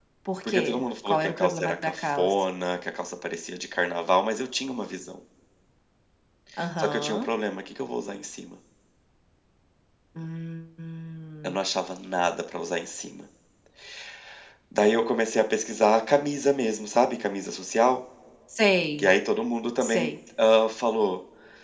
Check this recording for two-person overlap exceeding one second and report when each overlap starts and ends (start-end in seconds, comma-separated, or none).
1.1-2.3